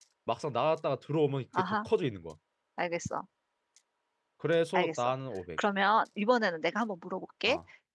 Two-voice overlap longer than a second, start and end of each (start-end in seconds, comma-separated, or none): none